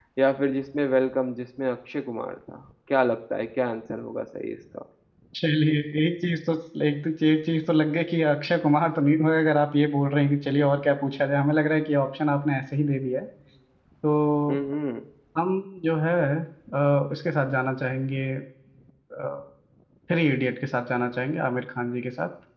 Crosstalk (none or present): none